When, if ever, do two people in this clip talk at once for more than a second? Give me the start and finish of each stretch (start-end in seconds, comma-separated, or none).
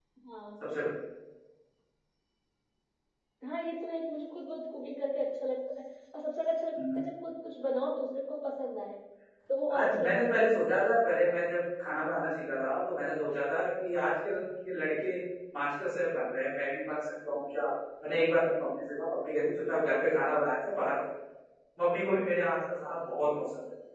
9.8-11.4